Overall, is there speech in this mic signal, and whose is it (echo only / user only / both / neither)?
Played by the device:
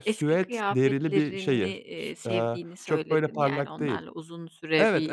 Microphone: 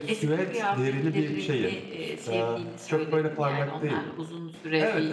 echo only